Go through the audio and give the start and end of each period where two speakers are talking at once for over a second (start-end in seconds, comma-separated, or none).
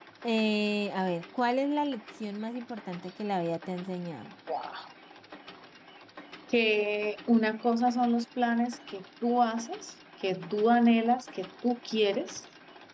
none